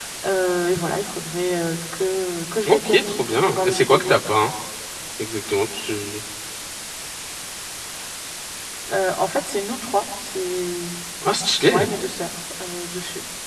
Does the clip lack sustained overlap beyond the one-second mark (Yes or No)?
No